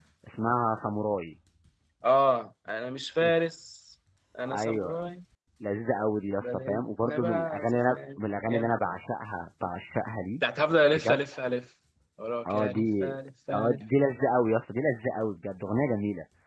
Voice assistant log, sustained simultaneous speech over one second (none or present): present